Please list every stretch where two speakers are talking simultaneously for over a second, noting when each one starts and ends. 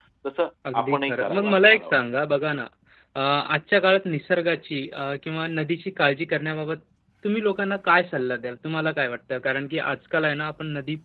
0.7-2.0

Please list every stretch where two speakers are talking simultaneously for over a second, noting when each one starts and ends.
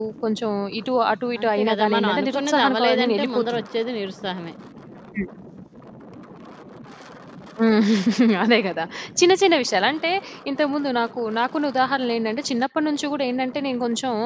1.4-3.6

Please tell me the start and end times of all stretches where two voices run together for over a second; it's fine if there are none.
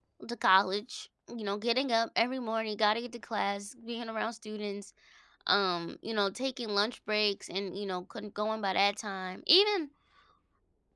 none

